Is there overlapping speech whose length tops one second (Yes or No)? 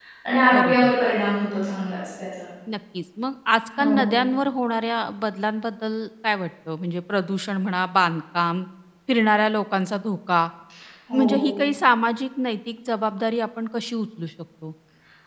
No